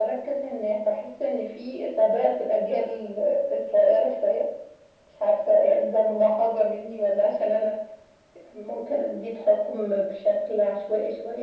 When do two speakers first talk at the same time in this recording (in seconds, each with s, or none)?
none